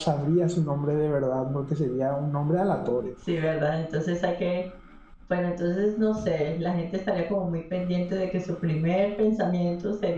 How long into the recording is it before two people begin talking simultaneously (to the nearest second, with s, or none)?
none